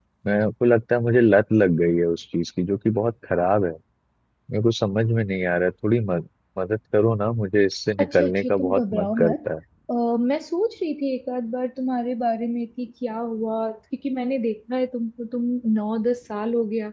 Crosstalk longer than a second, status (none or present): present